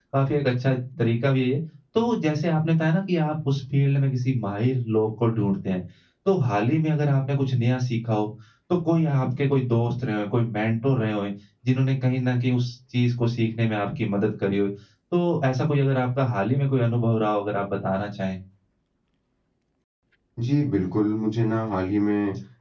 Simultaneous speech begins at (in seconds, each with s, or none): none